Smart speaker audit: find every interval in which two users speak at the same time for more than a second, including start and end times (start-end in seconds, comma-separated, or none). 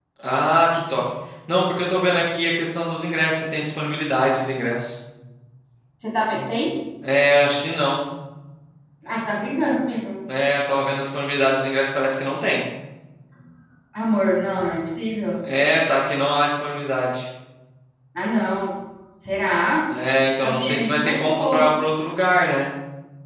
20.4-21.7